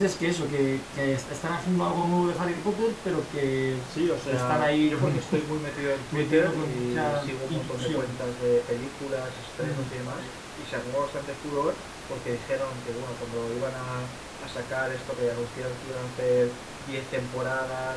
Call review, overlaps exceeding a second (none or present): present